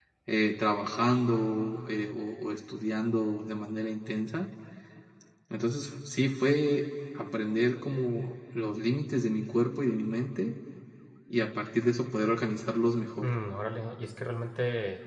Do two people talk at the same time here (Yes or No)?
No